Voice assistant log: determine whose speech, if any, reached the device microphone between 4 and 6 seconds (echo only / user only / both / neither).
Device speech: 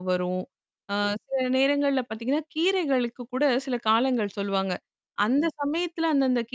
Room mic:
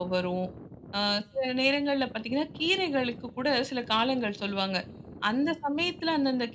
echo only